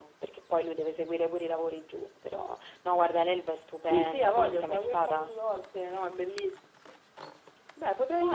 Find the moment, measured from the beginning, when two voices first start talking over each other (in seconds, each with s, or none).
3.9 s